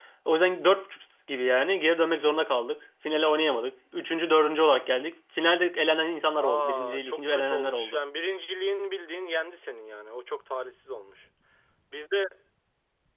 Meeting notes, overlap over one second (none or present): present